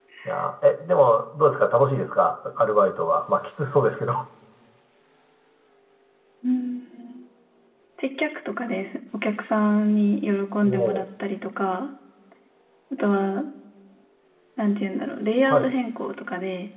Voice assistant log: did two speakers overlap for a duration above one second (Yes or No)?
No